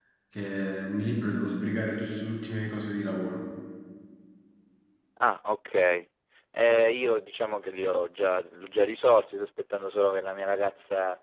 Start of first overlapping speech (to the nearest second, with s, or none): none